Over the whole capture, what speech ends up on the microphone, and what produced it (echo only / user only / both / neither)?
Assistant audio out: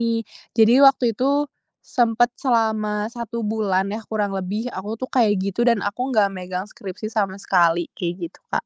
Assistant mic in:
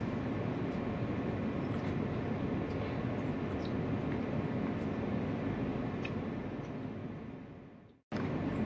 neither